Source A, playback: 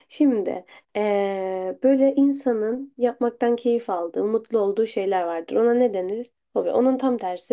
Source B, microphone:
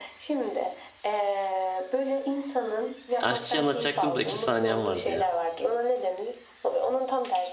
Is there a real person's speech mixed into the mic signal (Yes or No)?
Yes